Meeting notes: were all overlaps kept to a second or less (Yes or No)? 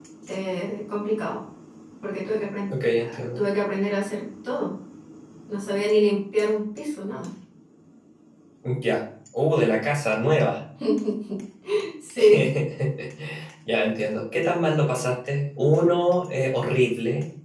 Yes